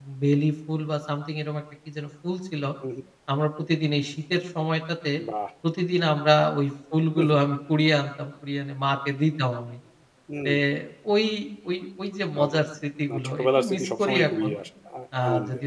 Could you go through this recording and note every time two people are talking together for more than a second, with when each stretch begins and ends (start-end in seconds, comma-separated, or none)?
13.1-14.5